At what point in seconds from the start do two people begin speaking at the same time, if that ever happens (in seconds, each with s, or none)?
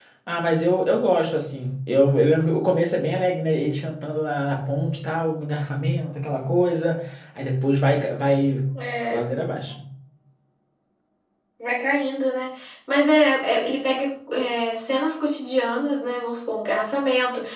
none